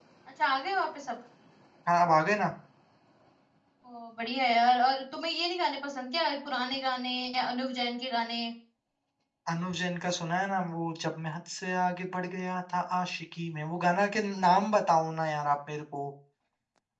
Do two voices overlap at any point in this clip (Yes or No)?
No